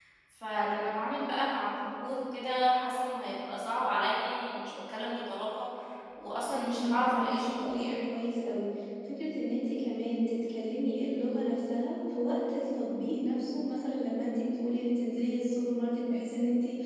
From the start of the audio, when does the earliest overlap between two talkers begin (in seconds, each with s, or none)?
6.5 s